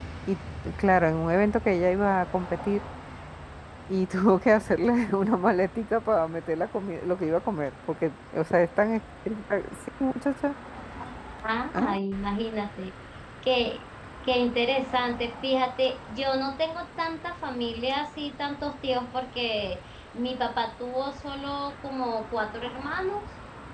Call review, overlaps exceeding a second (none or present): none